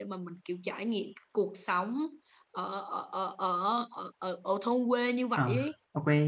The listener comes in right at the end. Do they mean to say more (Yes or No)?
Yes